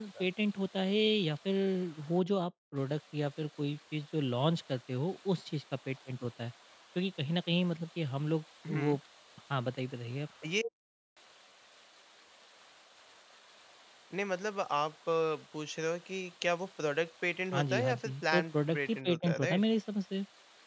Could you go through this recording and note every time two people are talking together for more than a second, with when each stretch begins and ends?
17.5-19.6

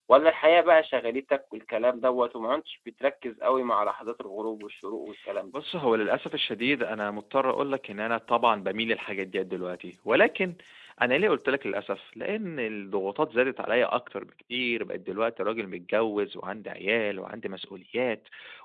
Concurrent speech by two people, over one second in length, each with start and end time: none

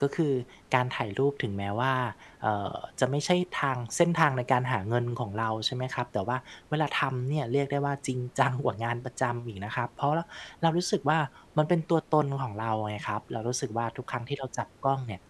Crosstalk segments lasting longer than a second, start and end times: none

